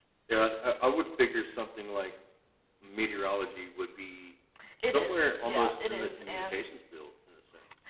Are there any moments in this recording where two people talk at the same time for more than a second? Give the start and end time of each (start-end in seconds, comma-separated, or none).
4.9-6.6